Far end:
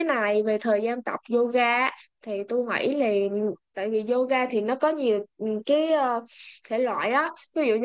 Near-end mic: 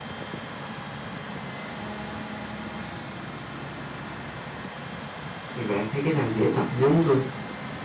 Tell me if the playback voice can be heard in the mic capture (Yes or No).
No